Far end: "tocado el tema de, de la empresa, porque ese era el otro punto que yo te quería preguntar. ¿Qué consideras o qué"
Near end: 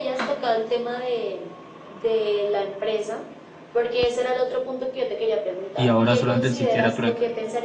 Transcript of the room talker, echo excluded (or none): y ahora solamente existiera trueque.